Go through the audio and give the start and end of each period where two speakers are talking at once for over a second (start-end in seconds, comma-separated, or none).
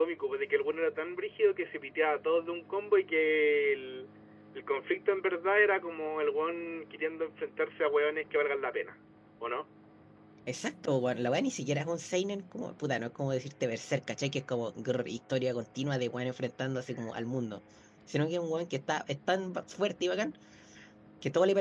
none